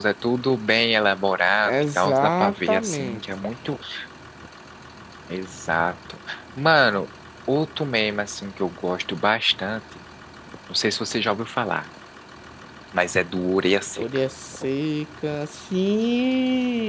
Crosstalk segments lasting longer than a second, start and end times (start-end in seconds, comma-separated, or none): 1.6-3.2